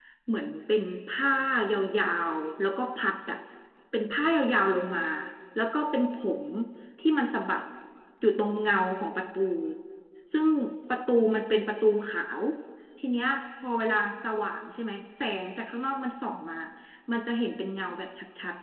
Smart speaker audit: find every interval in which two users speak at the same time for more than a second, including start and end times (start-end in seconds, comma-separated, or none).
none